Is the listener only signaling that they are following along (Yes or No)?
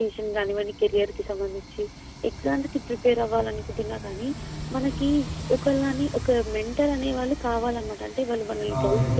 No